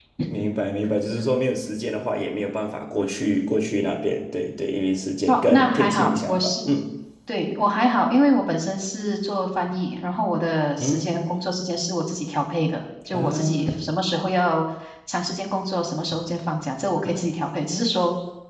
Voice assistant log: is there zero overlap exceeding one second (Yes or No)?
No